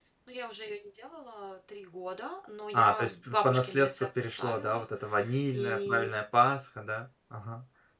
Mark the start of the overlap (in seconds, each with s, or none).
2.7 s